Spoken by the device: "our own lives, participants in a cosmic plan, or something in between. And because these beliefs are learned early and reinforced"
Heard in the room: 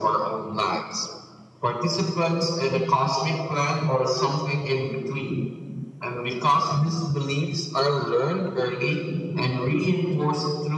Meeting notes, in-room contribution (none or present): none